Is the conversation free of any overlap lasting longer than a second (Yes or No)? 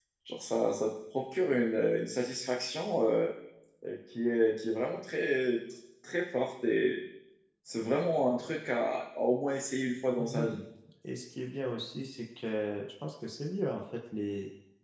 Yes